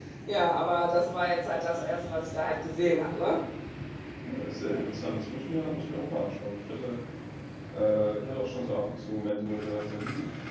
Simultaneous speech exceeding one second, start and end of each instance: none

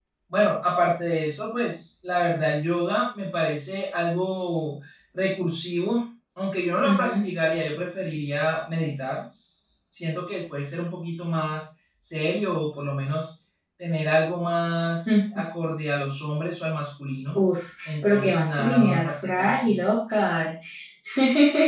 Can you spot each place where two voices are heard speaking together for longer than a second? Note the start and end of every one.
17.9-19.7

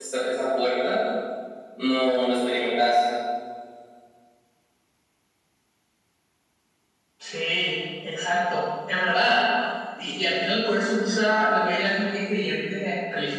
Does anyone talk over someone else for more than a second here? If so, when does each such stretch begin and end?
none

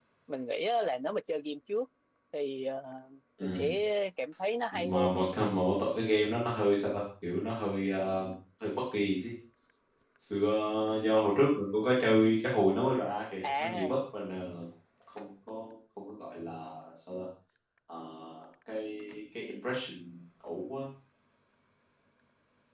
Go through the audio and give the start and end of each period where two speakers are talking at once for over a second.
none

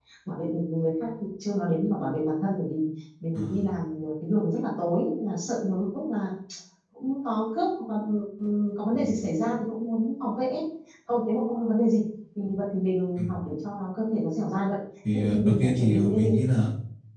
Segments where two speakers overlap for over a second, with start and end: 15.1-16.3

